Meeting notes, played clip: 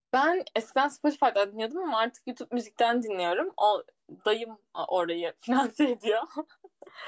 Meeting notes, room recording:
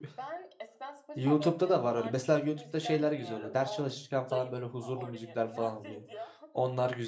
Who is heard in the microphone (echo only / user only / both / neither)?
both